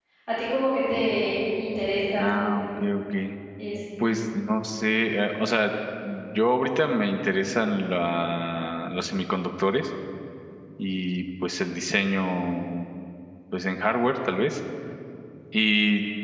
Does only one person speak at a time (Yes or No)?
Yes